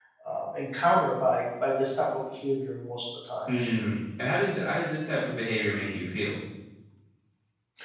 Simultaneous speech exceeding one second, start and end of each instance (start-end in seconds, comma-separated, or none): none